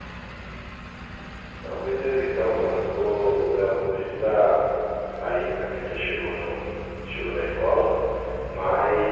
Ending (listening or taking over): listening